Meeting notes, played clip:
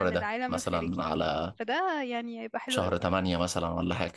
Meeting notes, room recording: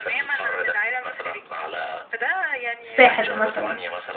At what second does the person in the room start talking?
2.8 s

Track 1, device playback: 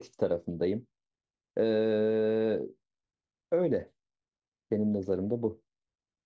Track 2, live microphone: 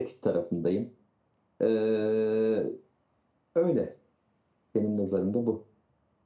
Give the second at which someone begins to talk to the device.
none

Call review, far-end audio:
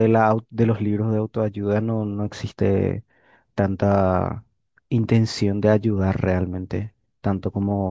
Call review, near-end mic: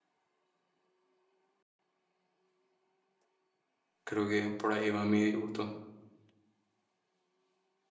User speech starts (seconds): 4.0 s

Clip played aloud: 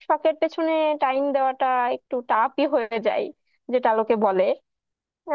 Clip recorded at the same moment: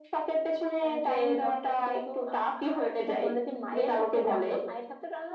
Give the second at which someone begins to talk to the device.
0.8 s

